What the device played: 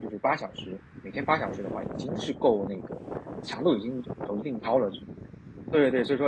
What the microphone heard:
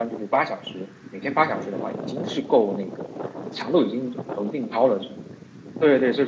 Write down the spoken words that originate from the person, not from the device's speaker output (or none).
none